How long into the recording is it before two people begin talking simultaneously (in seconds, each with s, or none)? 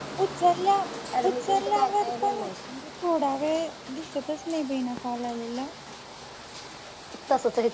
1.2 s